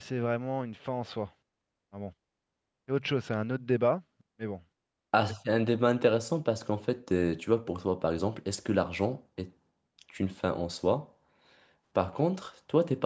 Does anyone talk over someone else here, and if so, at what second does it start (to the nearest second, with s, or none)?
none